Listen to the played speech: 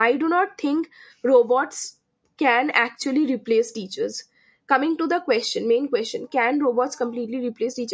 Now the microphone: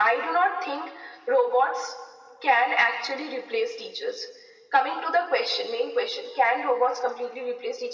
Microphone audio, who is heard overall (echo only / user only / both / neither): echo only